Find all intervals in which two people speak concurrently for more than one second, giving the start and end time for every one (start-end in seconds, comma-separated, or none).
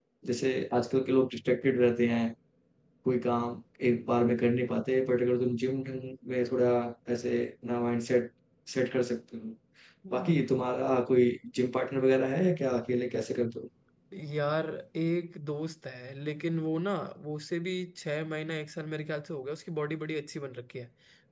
none